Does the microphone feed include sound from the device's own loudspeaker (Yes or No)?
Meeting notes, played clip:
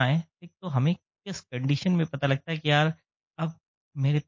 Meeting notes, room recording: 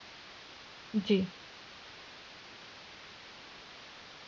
No